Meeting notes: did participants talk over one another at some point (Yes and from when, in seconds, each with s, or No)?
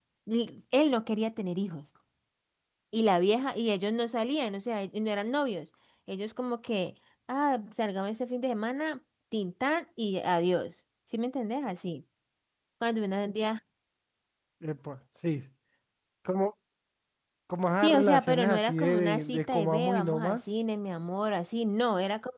Yes, from 17.8 s